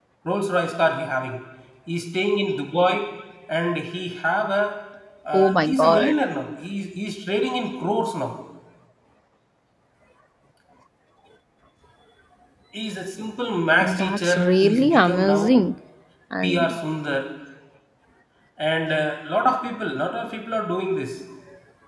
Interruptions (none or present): present